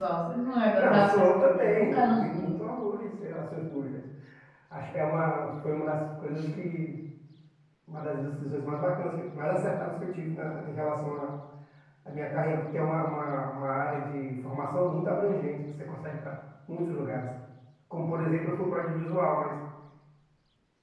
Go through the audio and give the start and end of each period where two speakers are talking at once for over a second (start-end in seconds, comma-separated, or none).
0.8-2.5